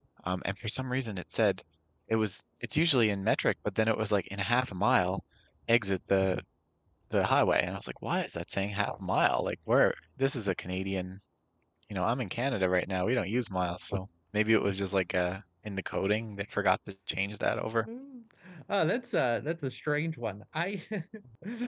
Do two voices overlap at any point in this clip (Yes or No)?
No